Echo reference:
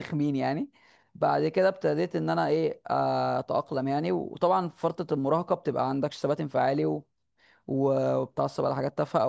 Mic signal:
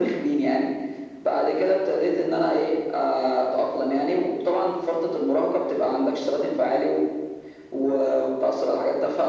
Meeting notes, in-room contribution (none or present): none